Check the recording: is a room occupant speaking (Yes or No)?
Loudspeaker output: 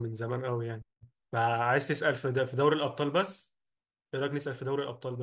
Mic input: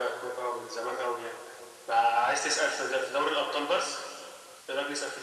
No